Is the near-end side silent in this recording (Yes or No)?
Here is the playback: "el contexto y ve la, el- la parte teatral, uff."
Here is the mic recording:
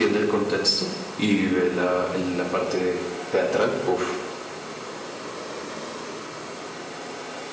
Yes